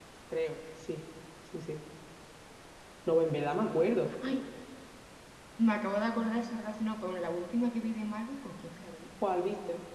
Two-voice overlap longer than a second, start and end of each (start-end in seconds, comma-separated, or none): none